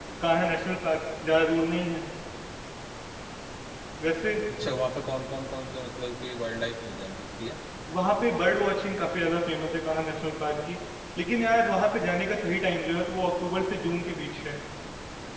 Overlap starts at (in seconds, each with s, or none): none